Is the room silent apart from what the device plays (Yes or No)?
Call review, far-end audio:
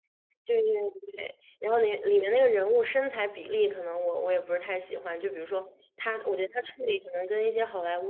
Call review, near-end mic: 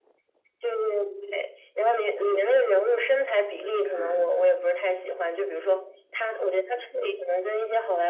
No